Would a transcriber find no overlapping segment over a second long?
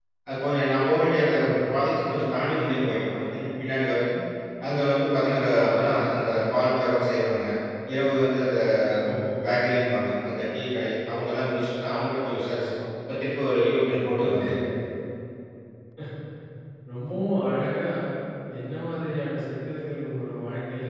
Yes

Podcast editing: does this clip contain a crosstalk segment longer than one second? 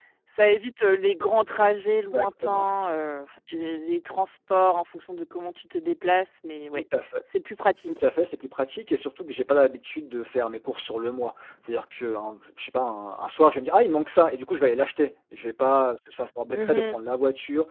No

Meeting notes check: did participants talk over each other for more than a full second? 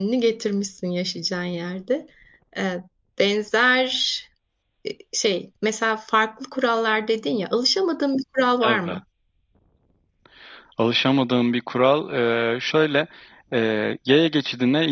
No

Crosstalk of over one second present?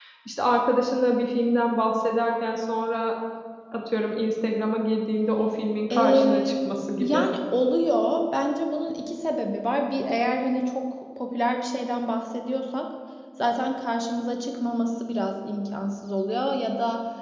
Yes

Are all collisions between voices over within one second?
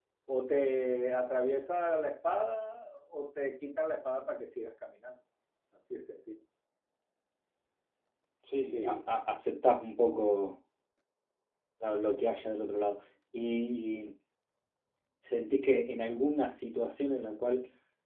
Yes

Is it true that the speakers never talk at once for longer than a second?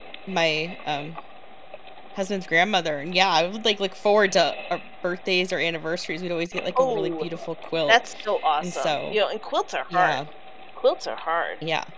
Yes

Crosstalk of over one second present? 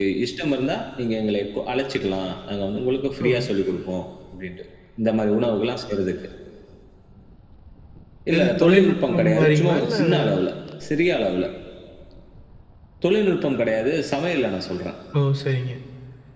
Yes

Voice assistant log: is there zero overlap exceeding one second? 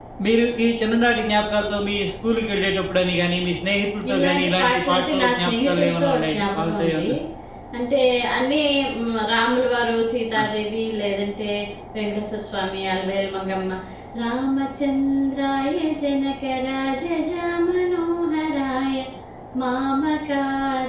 No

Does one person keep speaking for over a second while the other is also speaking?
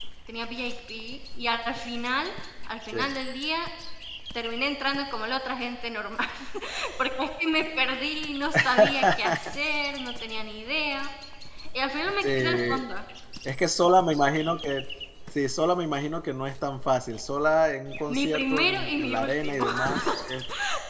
Yes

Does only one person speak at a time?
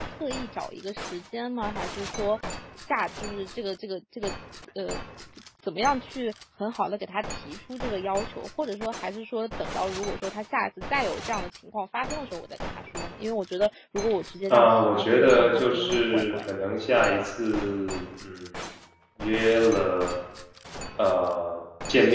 No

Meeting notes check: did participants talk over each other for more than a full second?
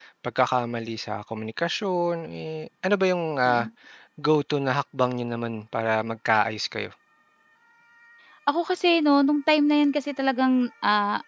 No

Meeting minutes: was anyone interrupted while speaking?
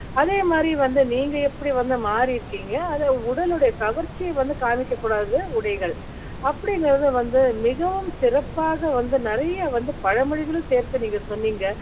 No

